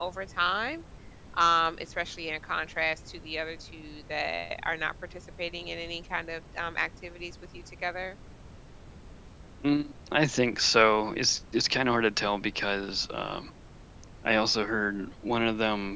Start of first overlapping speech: none

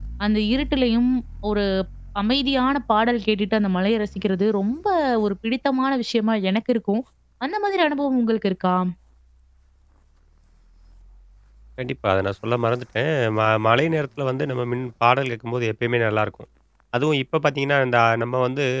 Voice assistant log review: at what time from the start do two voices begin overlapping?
none

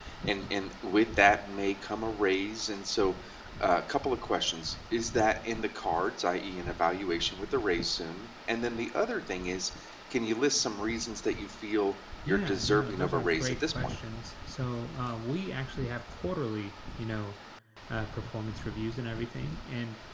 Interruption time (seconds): 12.2 s

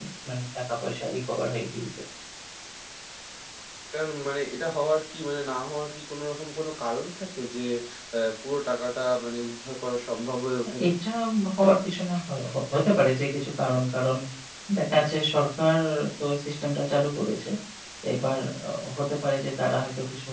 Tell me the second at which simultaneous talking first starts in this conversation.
none

